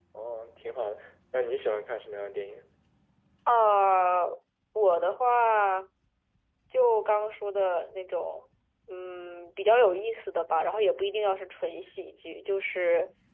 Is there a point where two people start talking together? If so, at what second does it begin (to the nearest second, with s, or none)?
none